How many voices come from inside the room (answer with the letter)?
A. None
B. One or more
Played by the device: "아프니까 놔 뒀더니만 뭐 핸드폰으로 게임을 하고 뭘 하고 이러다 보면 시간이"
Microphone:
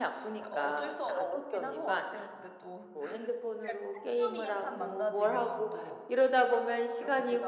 B